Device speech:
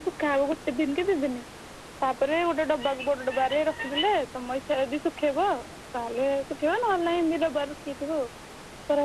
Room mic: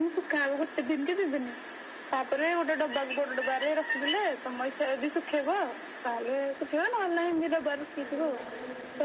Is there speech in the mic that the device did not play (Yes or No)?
Yes